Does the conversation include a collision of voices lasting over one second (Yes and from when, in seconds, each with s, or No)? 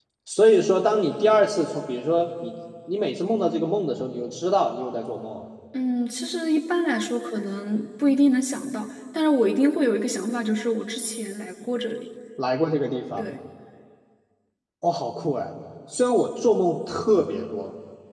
No